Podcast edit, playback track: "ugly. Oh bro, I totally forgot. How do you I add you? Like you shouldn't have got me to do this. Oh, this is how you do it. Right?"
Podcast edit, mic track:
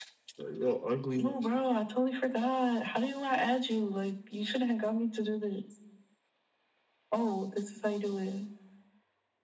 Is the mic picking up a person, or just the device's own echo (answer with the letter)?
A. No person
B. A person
A